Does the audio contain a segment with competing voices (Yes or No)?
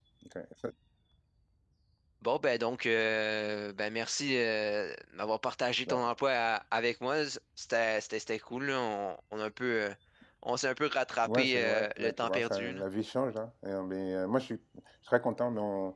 Yes